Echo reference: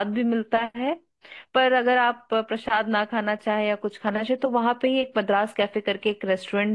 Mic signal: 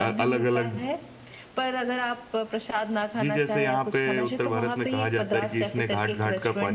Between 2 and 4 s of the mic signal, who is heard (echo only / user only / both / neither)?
both